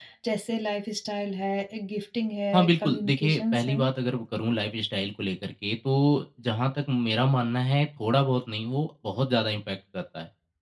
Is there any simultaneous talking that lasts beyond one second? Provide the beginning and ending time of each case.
2.5-3.8

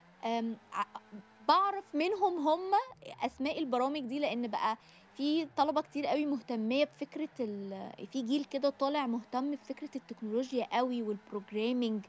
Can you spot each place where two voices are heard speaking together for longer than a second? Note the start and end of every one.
none

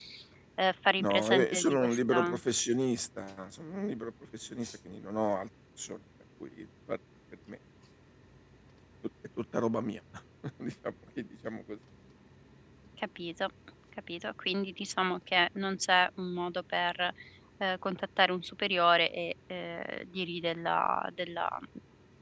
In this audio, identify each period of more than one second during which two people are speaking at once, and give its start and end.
1.0-2.4

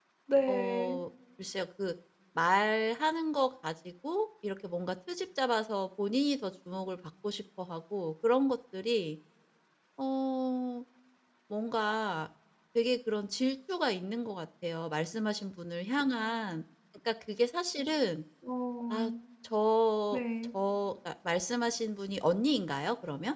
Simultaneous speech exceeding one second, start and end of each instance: none

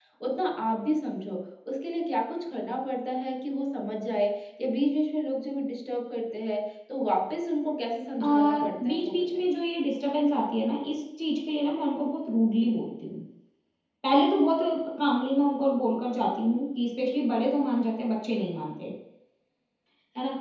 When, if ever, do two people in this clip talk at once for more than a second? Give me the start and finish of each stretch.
8.2-9.5

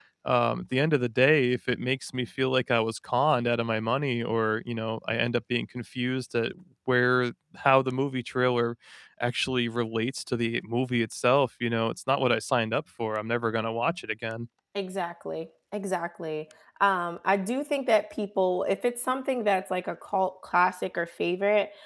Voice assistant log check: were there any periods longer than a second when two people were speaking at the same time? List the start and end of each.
none

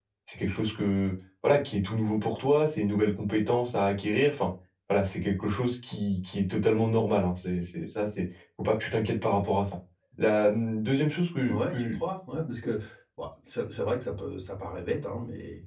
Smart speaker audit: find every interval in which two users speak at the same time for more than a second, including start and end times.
none

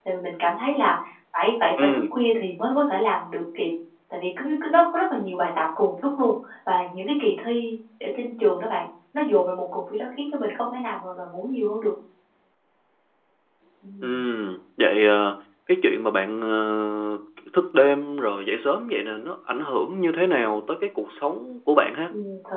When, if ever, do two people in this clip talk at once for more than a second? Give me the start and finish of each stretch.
none

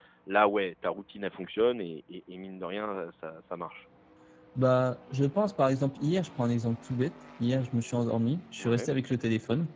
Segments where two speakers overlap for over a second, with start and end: none

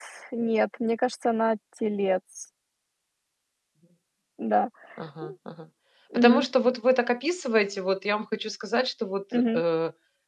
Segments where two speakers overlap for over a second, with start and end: none

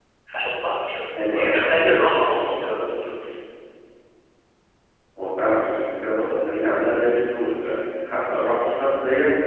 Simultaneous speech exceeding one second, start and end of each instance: none

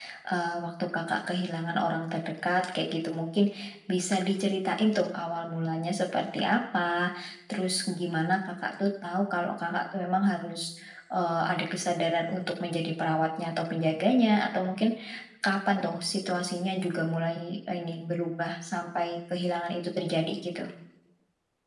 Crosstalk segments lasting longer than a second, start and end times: none

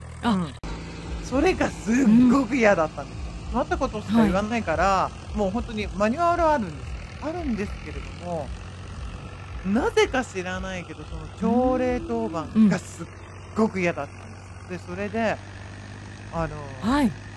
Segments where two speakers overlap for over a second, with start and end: 11.4-12.8

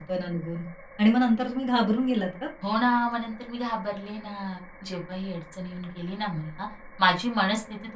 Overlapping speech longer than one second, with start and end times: none

